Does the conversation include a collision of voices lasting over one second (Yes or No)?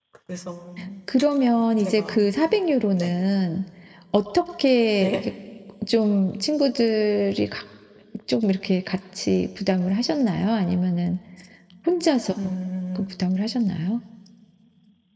No